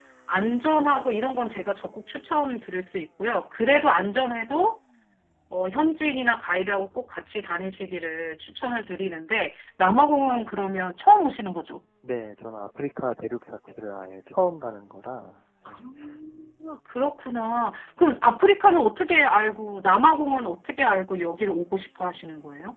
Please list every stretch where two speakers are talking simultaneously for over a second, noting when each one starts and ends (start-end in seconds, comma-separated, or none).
none